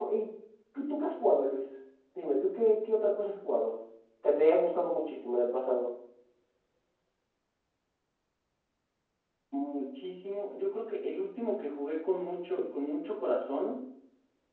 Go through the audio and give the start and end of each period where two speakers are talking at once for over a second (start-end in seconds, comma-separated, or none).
none